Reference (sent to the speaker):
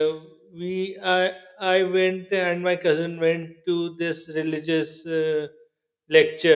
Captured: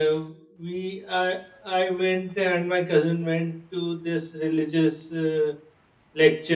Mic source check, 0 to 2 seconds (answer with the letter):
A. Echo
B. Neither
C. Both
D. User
A